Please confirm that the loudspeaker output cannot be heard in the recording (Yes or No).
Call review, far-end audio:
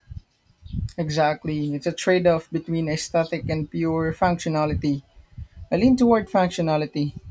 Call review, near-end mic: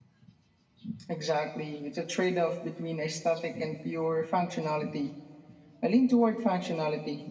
No